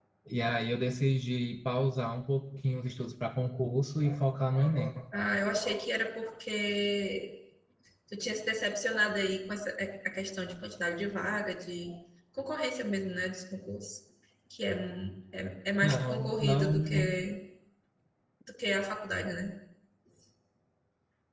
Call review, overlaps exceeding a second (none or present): present